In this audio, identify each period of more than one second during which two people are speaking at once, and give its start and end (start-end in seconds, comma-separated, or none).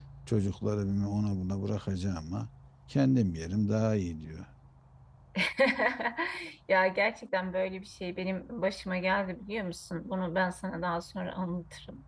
none